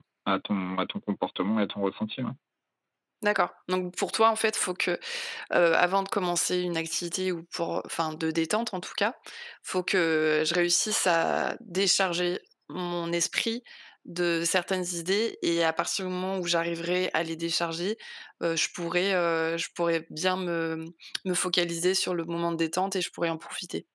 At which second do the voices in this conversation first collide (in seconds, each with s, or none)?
none